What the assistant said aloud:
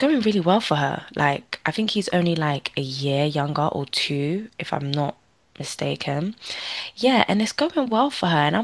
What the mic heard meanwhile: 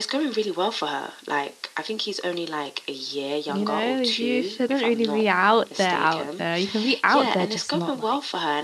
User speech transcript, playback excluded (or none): you know, you shouldn't really be out there, out there. You can be out there, just not like,